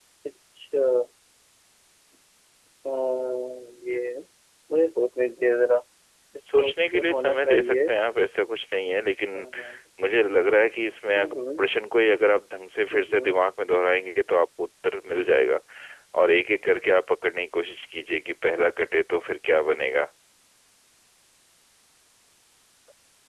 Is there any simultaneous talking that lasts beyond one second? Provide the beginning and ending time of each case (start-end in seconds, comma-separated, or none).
6.6-7.9